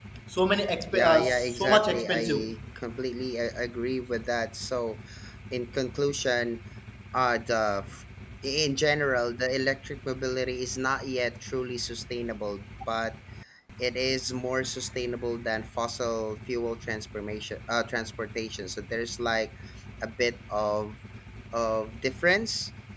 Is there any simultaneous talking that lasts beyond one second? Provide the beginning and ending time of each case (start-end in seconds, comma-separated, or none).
0.9-2.5